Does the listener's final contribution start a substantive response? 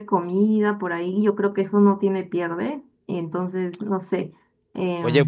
Yes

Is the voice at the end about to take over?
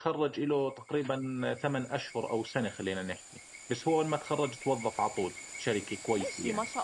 Yes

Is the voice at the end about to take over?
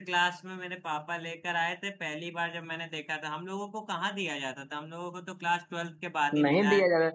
Yes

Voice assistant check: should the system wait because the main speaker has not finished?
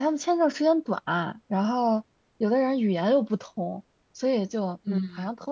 Yes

